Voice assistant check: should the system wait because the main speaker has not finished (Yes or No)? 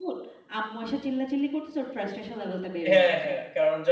No